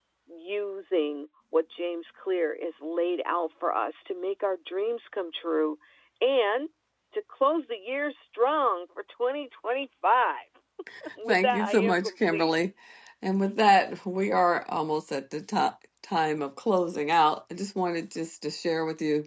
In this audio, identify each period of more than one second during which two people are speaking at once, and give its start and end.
11.3-12.5

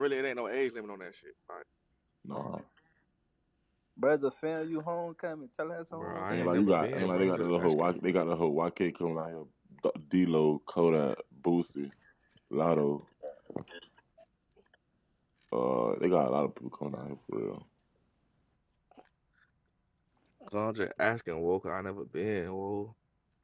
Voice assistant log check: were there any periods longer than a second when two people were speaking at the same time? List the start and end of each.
5.9-7.9

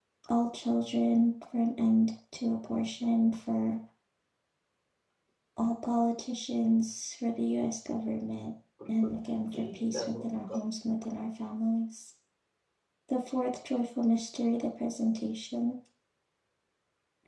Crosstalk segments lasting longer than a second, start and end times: 9.0-10.6

